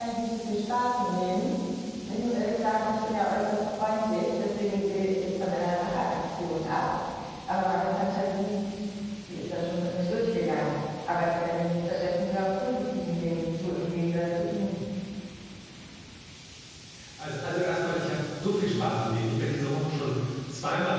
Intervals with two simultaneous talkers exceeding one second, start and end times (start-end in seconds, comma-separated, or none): none